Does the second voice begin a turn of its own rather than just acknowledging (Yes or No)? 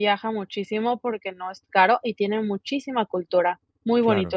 Yes